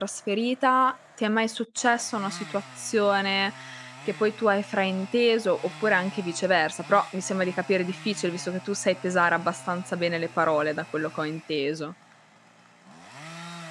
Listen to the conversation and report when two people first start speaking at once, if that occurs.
none

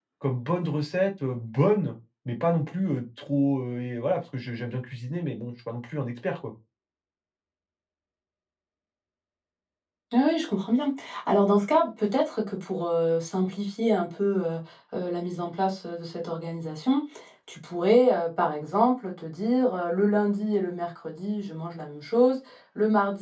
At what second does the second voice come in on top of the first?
none

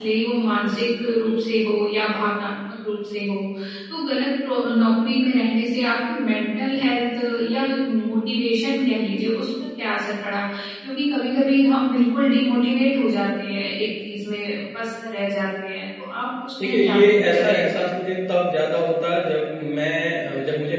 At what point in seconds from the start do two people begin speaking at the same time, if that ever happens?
16.6 s

